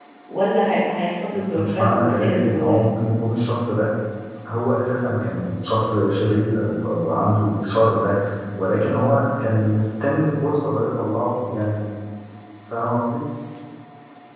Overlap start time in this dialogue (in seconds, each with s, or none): 1.3 s